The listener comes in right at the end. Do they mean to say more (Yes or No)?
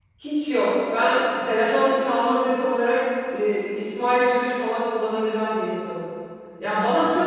No